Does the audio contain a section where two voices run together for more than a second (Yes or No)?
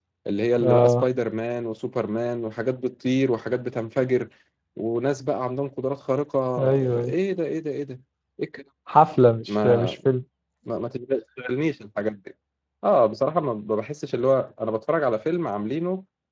No